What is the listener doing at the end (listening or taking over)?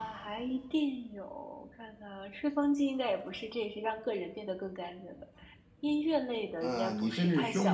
taking over